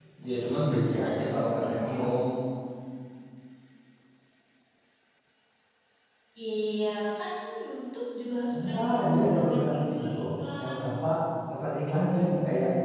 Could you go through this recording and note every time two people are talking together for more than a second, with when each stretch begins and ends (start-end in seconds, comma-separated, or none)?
8.5-10.2